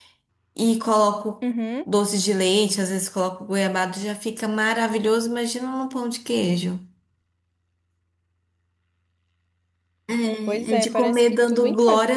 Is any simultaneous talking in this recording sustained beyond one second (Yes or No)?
Yes